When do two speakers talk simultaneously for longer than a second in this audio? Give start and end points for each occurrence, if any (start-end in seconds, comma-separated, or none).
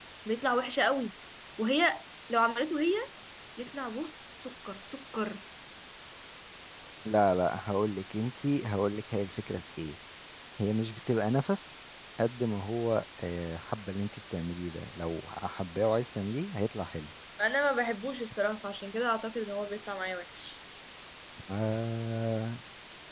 none